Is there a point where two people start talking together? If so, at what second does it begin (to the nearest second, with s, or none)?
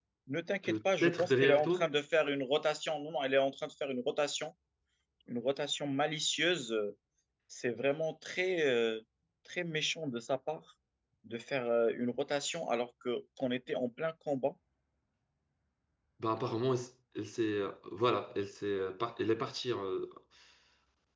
1 s